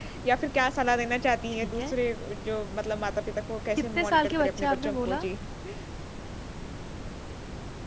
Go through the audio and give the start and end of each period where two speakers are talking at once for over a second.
3.8-5.2

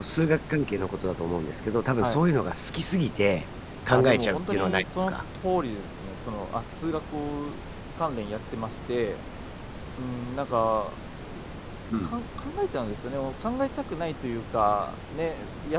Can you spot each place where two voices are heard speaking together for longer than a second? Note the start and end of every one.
3.9-5.2

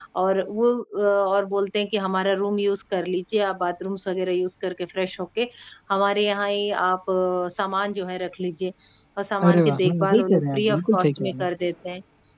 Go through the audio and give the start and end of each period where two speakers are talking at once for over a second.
9.5-11.5

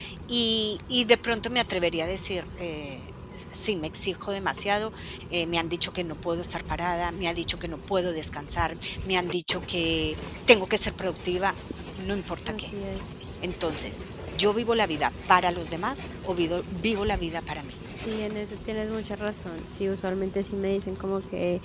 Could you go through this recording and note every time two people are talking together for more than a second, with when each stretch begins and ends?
none

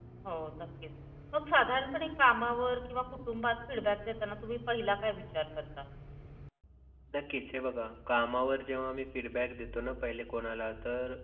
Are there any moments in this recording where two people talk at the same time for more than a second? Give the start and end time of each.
none

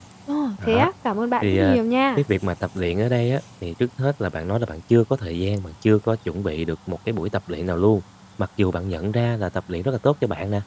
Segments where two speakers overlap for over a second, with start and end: none

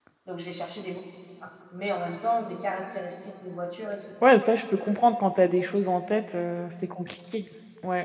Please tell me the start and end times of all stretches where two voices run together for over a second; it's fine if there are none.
none

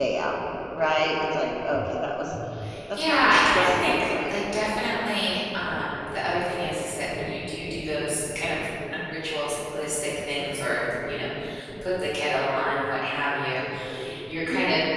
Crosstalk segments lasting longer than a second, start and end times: 2.9-4.4

